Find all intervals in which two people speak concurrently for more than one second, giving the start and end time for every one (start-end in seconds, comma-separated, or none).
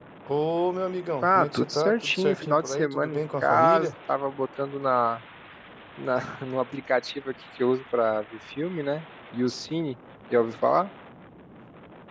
1.2-3.9